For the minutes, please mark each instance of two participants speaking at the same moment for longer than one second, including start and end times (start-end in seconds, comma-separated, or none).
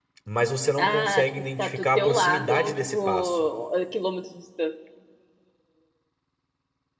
0.8-3.3